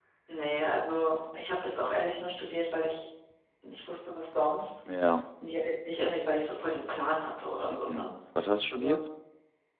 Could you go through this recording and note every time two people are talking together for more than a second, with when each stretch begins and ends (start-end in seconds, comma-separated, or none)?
none